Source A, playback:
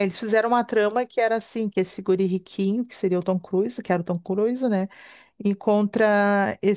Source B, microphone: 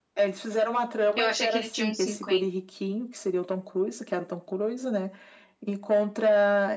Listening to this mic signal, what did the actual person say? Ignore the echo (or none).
Eu achei que ele tinha uns cinquenta